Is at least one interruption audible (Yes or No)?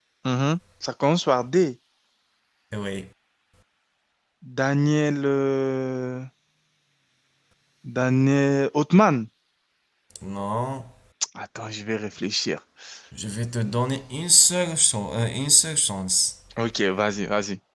No